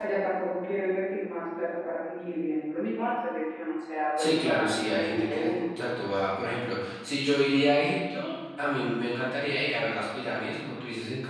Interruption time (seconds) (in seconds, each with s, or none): 4.2 s